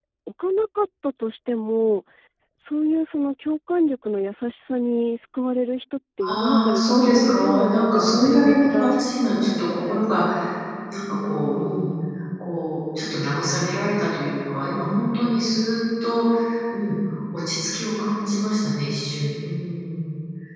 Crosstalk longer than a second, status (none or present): present